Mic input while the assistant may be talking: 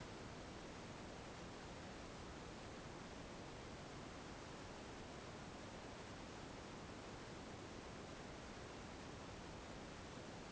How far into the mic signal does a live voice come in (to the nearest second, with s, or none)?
none